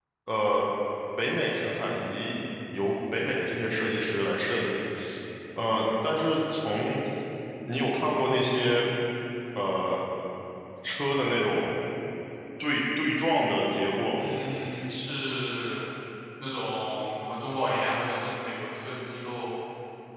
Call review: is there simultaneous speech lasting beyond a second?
No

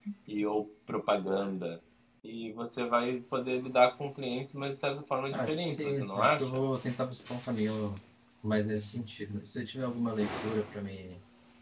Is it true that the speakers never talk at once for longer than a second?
No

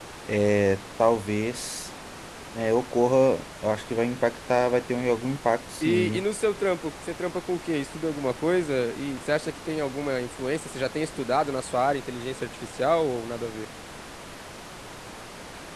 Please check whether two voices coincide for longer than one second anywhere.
No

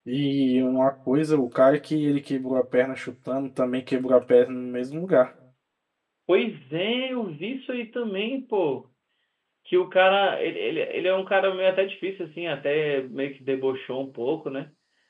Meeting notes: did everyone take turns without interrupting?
Yes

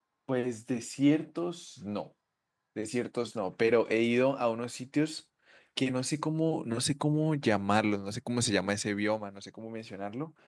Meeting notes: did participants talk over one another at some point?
No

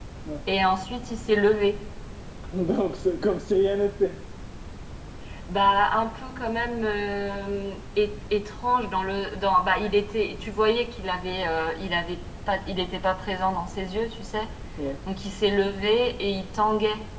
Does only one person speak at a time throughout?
Yes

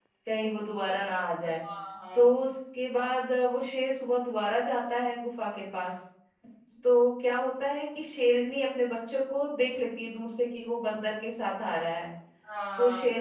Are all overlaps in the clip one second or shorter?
Yes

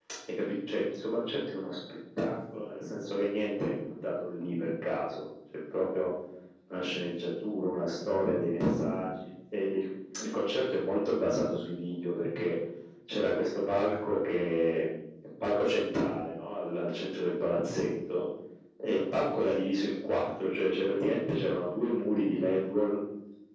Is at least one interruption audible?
No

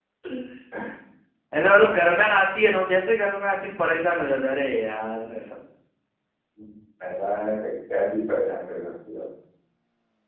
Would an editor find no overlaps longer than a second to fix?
Yes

